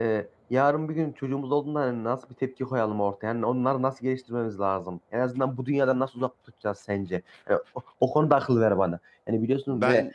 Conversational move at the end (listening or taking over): listening